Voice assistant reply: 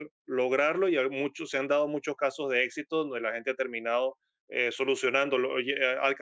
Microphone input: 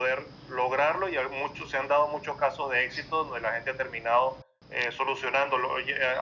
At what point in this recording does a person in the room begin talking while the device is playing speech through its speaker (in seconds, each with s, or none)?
none